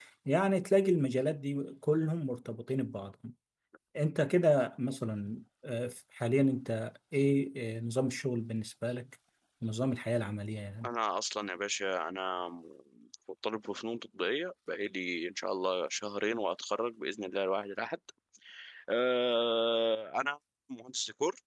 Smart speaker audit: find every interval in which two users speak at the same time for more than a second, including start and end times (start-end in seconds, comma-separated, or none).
none